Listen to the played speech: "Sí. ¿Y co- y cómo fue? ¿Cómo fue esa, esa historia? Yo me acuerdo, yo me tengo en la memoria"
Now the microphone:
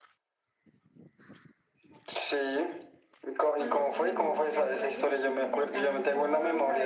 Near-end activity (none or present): present